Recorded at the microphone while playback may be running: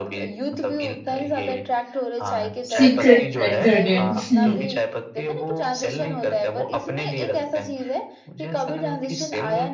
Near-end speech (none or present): present